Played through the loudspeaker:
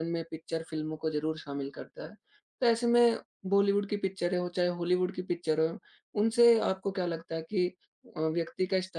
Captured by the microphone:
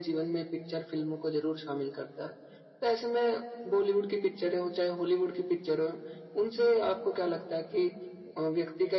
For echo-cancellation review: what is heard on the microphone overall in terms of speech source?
echo only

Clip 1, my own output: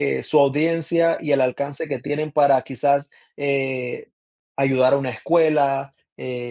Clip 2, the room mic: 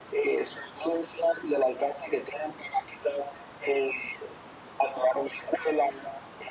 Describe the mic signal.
echo only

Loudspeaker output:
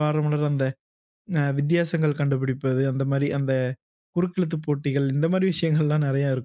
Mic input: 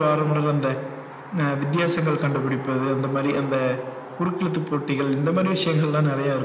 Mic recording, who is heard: echo only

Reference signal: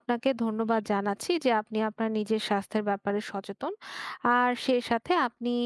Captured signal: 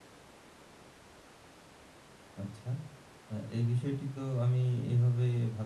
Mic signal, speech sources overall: user only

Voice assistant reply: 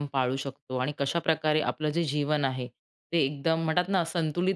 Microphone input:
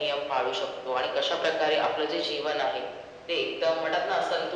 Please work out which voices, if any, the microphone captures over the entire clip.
echo only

